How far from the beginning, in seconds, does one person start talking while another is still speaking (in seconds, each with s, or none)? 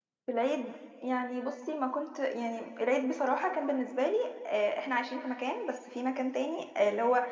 none